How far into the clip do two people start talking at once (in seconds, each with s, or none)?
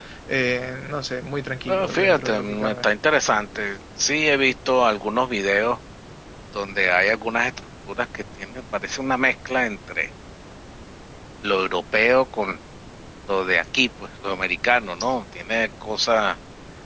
1.7 s